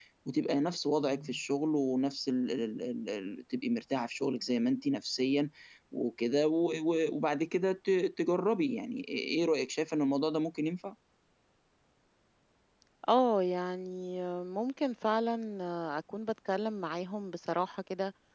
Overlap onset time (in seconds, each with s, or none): none